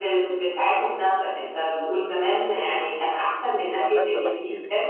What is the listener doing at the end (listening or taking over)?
taking over